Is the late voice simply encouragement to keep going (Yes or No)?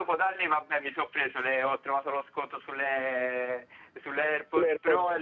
Yes